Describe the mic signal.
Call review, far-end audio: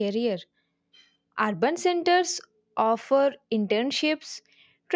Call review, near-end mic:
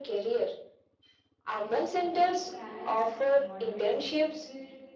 both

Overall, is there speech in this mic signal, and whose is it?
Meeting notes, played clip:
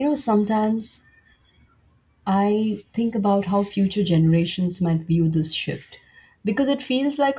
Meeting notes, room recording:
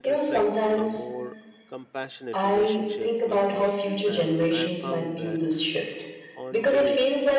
both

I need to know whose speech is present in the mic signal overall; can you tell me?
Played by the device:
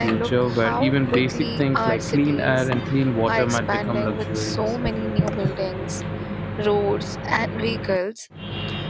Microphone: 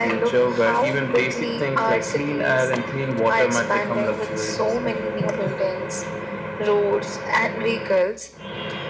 echo only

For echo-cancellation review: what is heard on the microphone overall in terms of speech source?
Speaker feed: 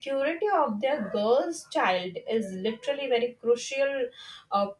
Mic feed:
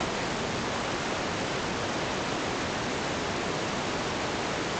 neither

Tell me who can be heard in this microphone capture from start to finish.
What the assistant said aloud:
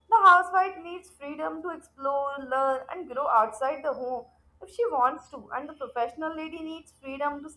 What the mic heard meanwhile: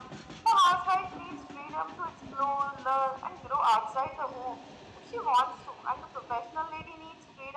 echo only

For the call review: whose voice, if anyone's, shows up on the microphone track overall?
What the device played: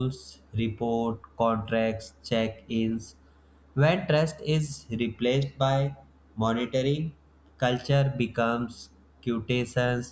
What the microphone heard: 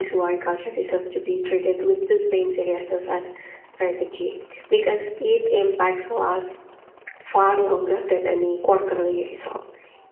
user only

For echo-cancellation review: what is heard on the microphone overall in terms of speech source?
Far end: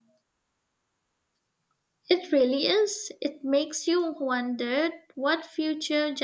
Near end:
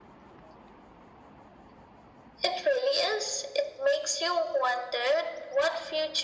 echo only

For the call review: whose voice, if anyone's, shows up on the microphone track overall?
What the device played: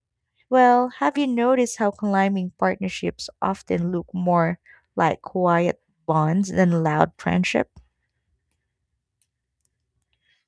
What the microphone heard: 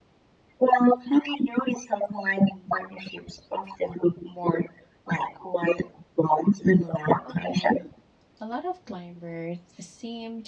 both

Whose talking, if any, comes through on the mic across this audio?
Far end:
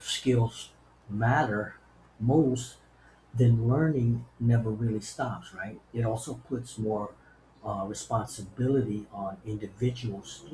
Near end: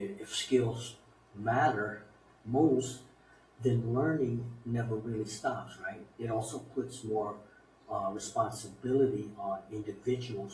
echo only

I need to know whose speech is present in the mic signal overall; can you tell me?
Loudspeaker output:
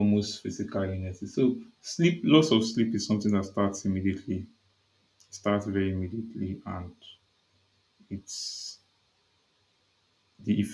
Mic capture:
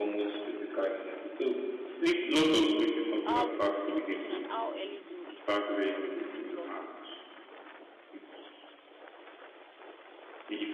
both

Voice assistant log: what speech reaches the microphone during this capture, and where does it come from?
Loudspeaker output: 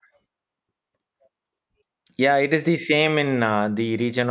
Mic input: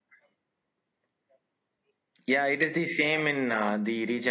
echo only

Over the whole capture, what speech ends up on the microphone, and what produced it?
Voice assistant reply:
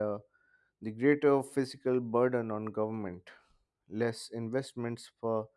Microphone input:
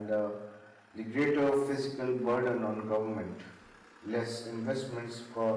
echo only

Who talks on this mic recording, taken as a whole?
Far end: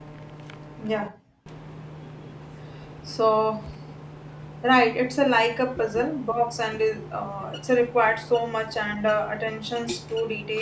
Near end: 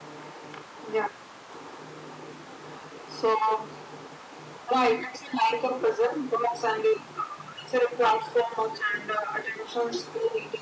echo only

